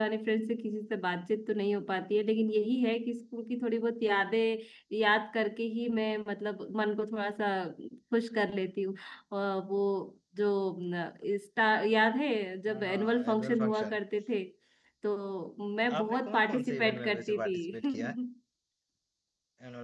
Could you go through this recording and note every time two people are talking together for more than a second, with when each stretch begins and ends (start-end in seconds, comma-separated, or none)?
12.7-14.0, 16.0-18.1